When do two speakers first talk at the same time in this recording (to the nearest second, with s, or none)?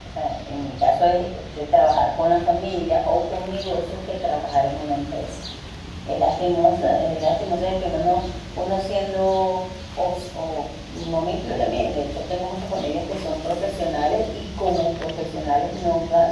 none